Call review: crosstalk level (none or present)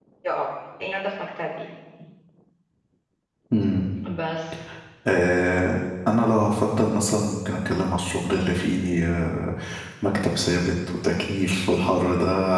none